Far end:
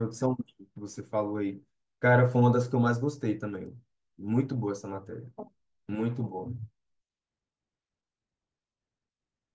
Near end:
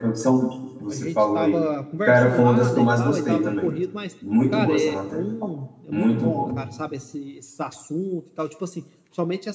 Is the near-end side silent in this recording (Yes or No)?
No